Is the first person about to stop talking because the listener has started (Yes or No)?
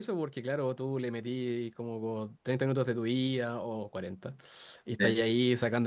No